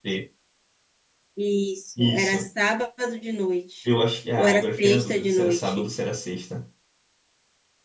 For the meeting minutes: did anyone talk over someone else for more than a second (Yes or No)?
Yes